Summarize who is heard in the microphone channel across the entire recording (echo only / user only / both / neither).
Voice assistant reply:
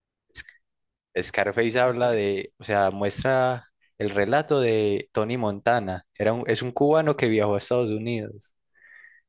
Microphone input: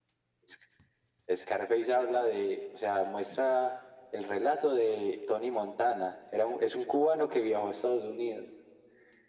echo only